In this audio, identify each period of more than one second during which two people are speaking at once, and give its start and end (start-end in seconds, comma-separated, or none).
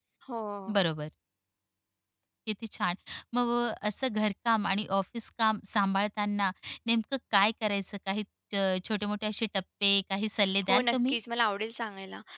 none